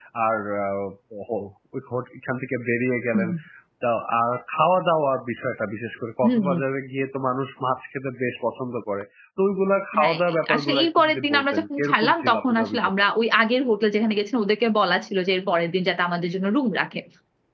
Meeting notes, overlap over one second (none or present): present